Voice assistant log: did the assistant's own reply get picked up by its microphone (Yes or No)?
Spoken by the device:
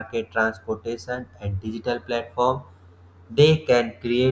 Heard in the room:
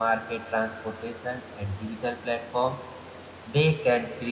Yes